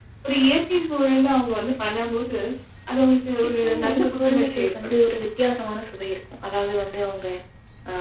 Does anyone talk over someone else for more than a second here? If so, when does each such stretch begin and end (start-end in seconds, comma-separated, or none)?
3.6-5.0